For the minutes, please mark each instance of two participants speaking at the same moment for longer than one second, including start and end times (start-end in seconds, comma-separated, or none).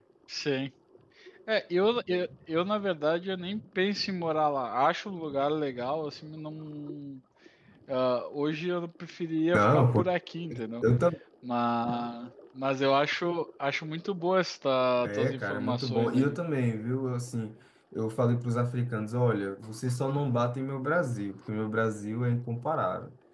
15.0-16.4